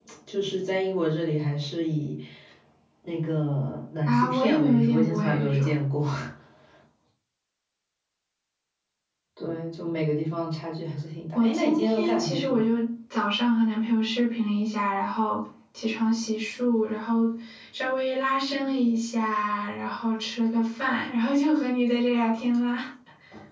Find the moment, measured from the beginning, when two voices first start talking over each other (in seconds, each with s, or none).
4.1 s